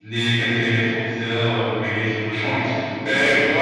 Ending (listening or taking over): taking over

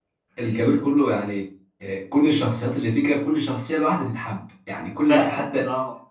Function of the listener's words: taking over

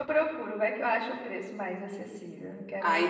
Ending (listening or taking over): taking over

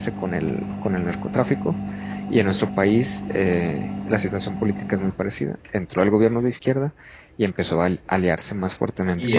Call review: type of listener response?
taking over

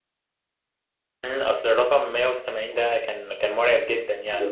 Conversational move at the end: taking over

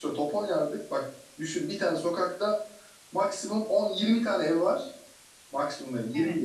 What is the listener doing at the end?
listening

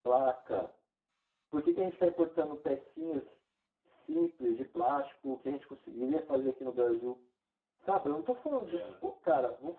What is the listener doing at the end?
listening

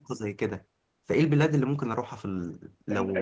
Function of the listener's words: taking over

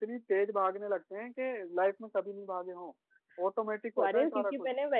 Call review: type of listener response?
taking over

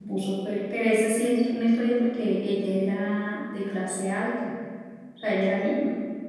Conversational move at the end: listening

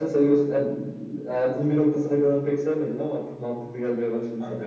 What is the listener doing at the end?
taking over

